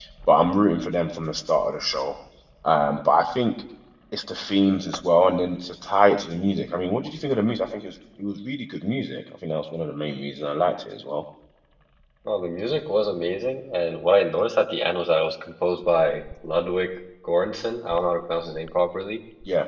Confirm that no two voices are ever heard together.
Yes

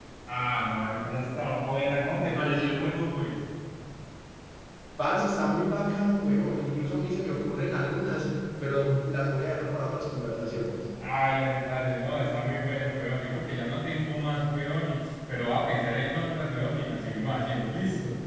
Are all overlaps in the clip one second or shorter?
Yes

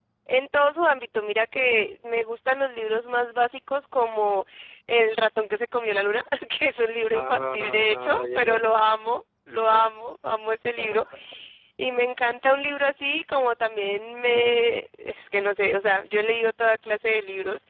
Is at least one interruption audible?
Yes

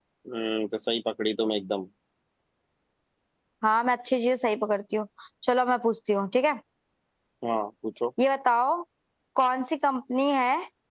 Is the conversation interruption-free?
Yes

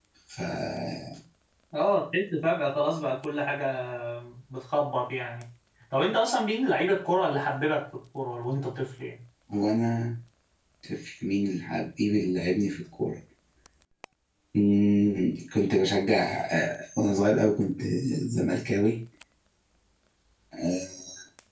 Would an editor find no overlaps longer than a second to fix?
Yes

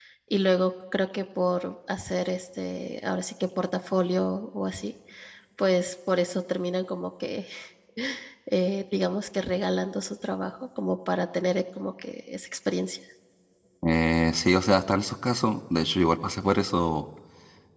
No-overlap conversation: Yes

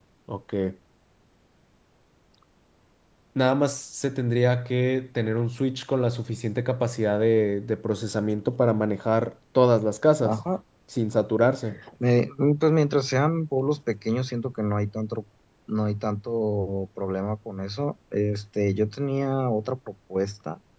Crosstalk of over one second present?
No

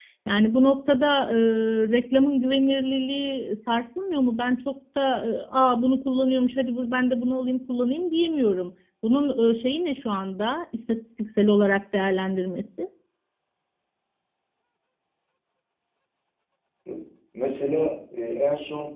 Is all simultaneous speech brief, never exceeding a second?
Yes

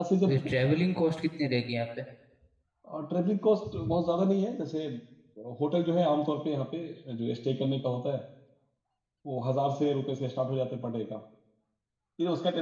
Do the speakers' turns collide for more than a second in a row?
No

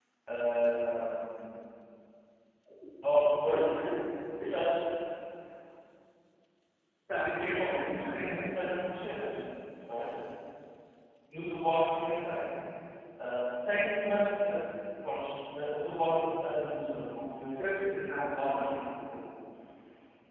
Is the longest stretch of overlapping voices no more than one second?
No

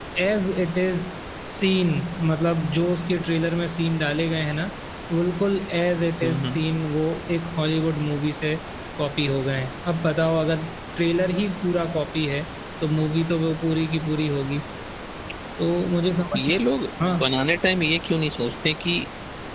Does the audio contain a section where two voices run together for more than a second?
No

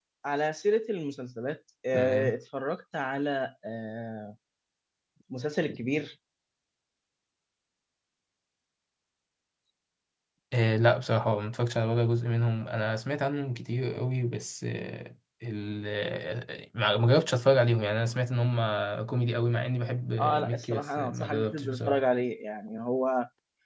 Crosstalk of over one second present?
Yes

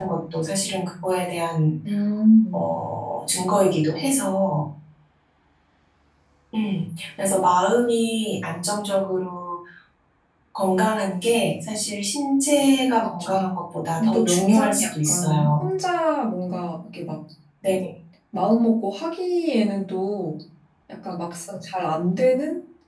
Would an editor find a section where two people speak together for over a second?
Yes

